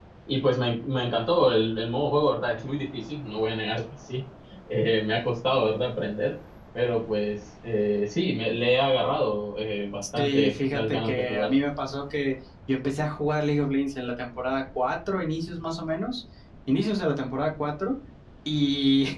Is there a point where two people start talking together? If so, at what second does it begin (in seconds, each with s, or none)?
10.2 s